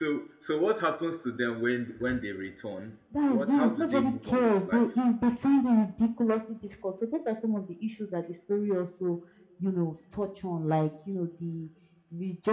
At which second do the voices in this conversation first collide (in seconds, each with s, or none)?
3.1 s